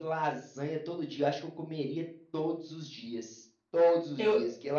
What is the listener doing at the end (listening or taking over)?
listening